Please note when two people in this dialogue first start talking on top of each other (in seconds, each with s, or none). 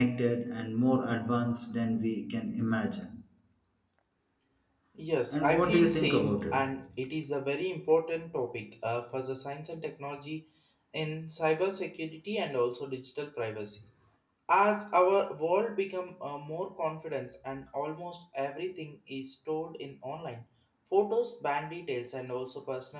5.3 s